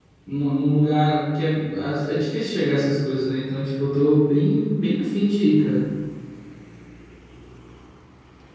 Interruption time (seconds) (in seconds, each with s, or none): none